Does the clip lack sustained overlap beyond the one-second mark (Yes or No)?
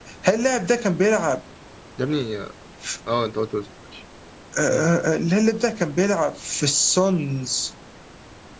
Yes